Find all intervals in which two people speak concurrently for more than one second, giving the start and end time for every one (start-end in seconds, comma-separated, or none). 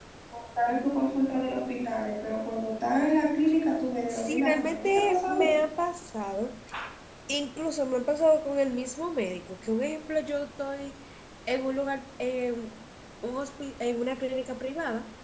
4.1-5.6